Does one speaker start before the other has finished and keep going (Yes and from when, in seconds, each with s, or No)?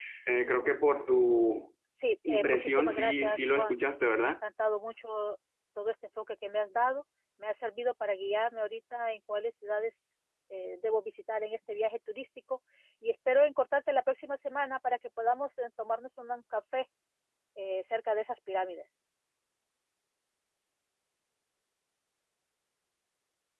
Yes, from 2.3 s